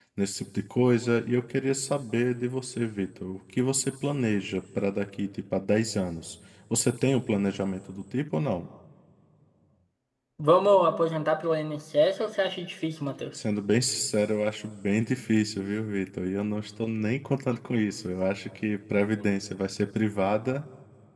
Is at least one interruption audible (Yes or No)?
No